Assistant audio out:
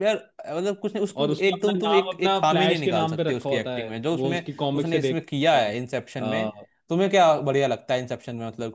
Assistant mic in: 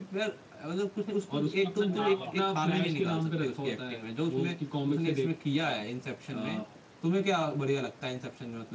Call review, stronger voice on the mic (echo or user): echo